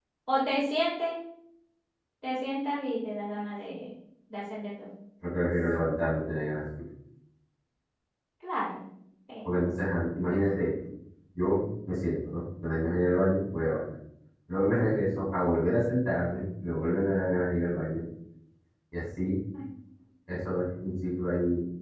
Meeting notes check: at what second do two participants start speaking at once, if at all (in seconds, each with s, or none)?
none